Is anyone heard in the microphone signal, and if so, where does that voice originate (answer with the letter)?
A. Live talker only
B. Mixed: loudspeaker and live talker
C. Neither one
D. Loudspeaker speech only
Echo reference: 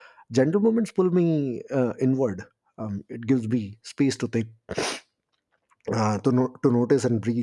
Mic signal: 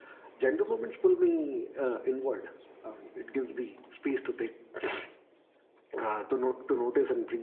D